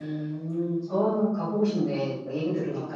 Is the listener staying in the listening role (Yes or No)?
No